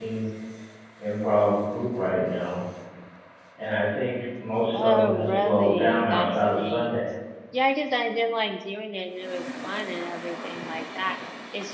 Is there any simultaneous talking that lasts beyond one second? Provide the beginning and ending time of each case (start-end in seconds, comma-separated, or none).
4.7-7.0